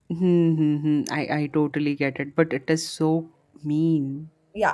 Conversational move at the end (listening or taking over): taking over